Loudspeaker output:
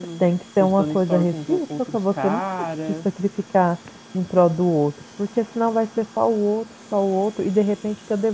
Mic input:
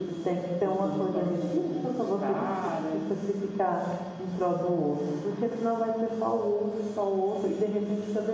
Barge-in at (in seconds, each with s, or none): none